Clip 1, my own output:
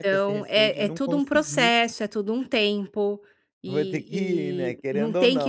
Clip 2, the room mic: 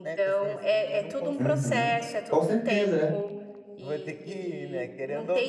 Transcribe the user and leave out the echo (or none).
Uhum. Com certeza, é.